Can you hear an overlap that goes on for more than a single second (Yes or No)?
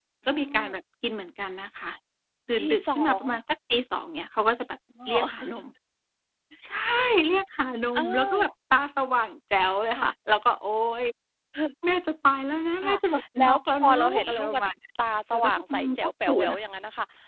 Yes